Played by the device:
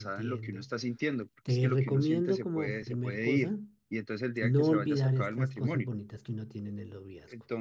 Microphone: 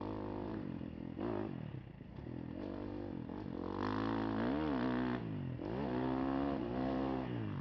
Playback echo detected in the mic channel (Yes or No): No